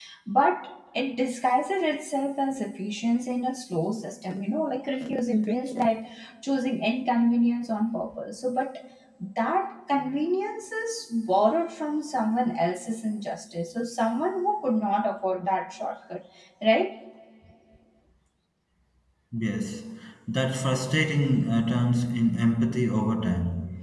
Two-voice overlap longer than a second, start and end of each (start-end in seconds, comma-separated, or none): none